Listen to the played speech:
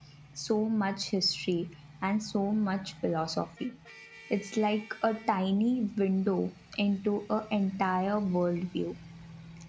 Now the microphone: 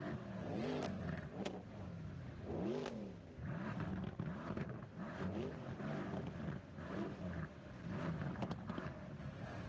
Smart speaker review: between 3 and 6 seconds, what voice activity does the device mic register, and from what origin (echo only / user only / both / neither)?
neither